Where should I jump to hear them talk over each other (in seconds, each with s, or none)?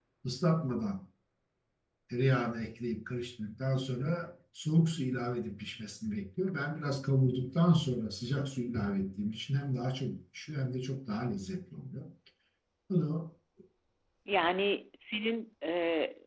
none